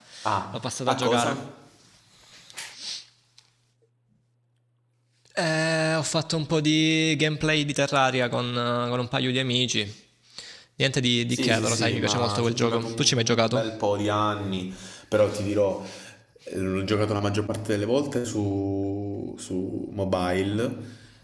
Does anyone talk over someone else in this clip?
Yes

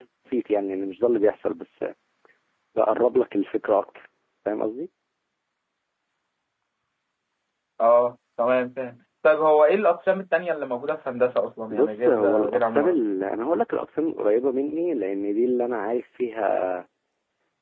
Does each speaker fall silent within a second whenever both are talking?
No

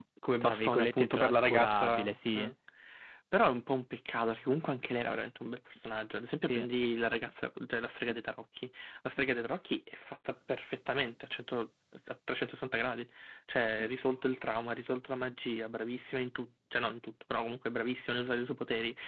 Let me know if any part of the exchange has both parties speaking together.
Yes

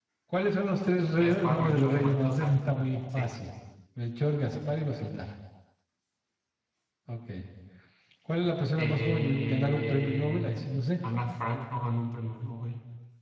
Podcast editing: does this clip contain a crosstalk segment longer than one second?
Yes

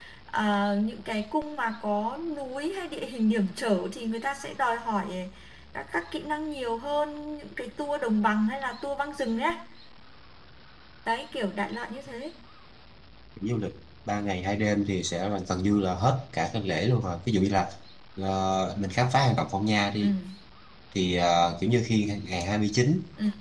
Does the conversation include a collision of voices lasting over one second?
No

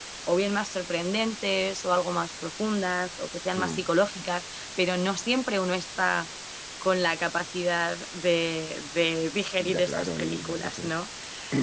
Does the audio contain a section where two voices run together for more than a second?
Yes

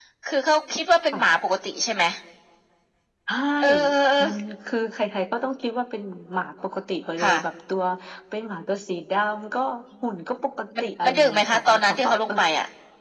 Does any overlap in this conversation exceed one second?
Yes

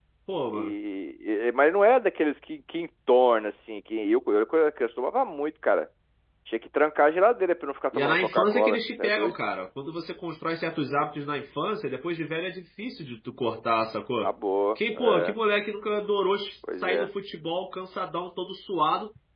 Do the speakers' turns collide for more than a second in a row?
Yes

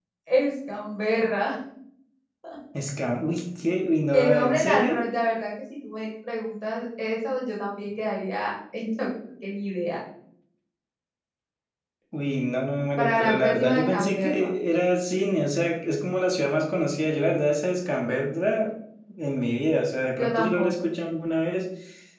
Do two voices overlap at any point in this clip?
Yes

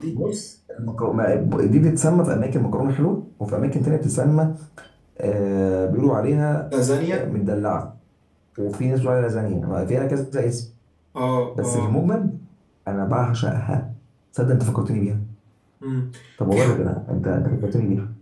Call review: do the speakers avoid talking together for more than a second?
Yes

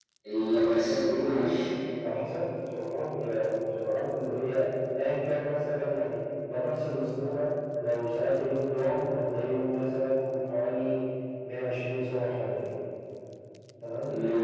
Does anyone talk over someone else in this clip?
No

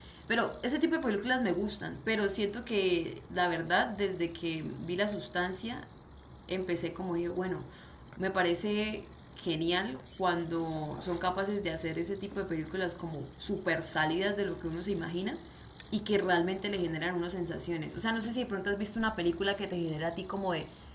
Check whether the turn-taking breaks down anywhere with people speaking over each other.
No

